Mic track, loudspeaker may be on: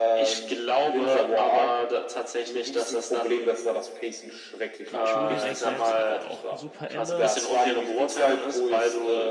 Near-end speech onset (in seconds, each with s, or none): 4.9 s